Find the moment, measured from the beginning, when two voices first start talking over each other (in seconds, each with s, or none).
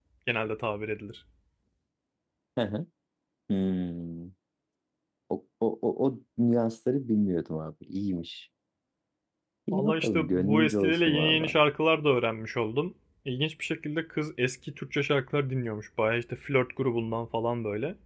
9.7 s